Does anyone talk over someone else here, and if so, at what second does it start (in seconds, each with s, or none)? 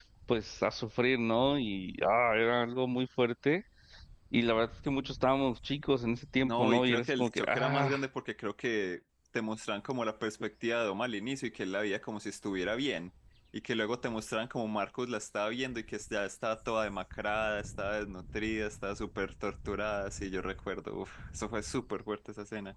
6.4 s